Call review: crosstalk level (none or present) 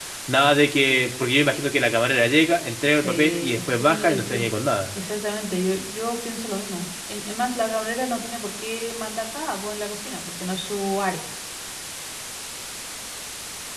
present